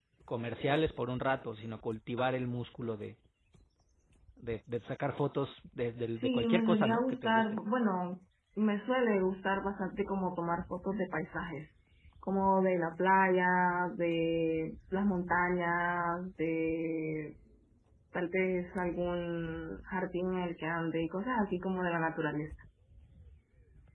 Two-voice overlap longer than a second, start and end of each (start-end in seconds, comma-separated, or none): 6.2-7.4